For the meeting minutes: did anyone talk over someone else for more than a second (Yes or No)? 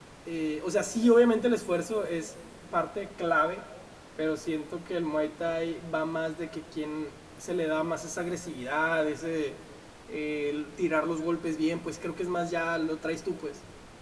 No